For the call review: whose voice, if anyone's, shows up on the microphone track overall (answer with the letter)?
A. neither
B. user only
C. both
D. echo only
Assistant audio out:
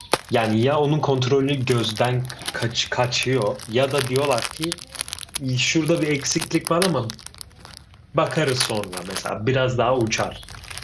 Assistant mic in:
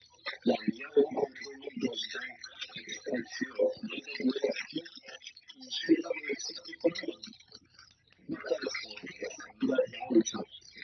D